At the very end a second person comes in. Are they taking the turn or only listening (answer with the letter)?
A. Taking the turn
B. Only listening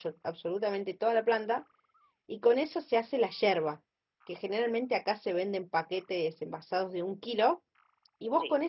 B